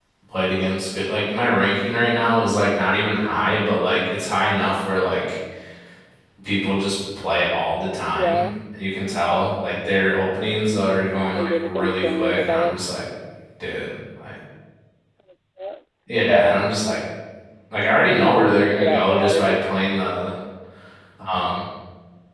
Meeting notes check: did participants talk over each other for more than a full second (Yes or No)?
Yes